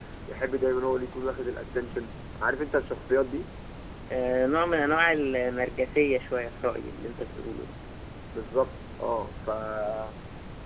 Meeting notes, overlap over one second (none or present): none